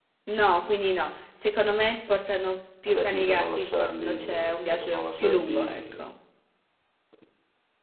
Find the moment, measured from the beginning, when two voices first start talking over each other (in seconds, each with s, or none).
2.9 s